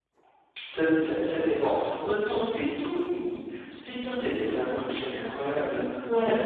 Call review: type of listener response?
listening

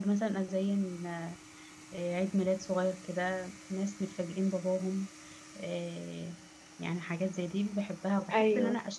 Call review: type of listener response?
listening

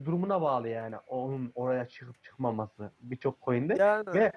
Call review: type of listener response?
listening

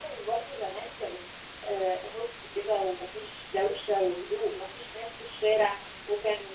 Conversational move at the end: listening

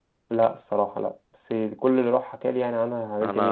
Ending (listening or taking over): taking over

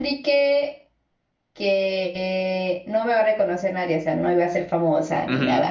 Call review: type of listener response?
taking over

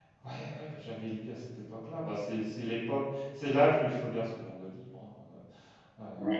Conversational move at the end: taking over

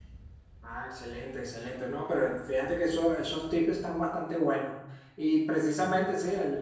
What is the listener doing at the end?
listening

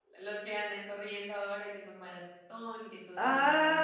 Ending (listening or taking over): taking over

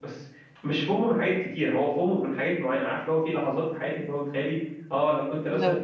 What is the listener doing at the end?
listening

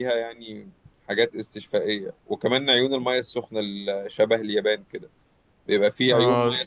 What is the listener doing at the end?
listening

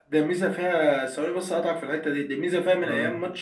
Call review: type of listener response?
listening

